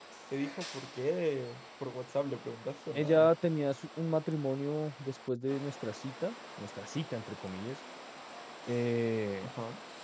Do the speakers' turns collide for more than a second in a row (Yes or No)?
No